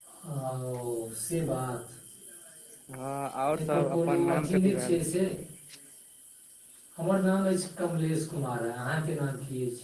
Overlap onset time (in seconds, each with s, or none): 3.5 s